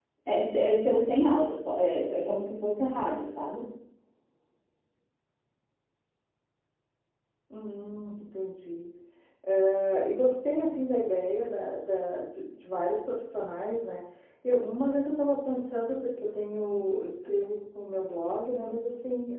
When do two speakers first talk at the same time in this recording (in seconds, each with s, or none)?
none